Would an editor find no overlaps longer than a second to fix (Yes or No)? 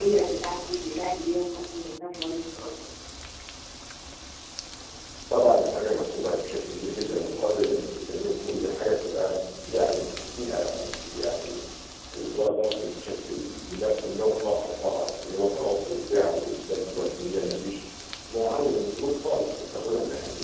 Yes